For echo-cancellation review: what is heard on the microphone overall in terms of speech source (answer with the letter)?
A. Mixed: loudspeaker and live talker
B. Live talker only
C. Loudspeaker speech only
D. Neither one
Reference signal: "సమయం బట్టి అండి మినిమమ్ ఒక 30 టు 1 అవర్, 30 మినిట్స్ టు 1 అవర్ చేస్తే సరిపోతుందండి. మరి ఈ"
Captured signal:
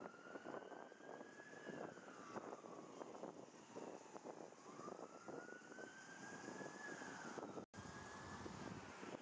D